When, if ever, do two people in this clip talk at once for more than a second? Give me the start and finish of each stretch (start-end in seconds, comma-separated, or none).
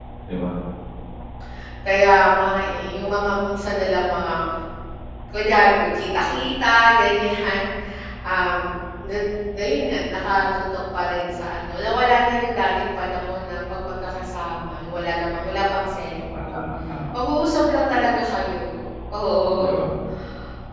none